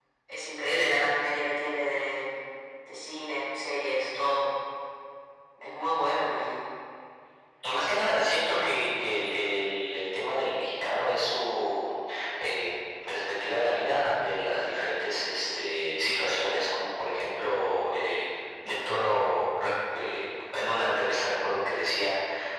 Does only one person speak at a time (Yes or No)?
Yes